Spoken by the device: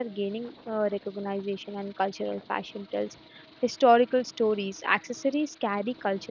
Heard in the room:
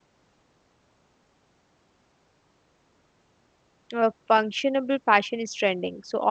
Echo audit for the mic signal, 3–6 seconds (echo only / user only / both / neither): user only